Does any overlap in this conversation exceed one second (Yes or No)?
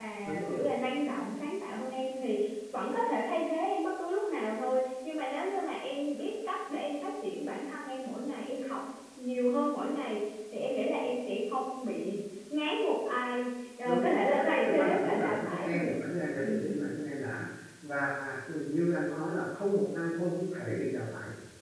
Yes